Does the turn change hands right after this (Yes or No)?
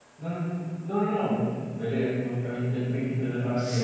Yes